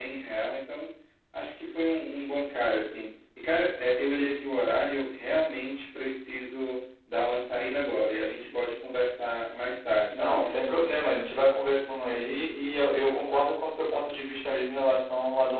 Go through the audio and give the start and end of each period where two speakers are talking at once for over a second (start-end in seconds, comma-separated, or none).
none